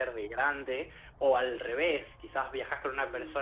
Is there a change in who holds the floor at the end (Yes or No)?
No